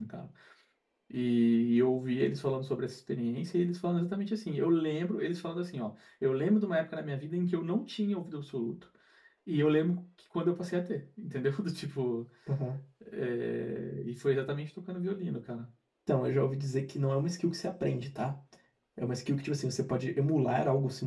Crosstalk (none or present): none